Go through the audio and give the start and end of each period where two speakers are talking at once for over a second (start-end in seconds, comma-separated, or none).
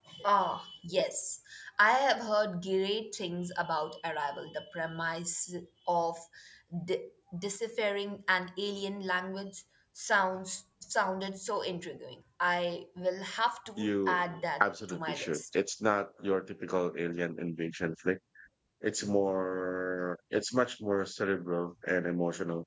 13.8-15.6